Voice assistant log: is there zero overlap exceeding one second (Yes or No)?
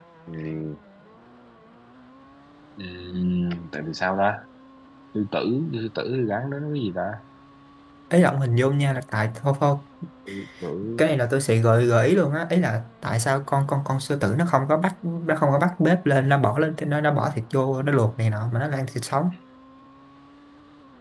Yes